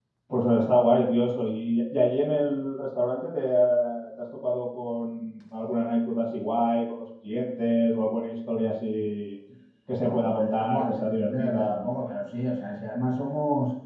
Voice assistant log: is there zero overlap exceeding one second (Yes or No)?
No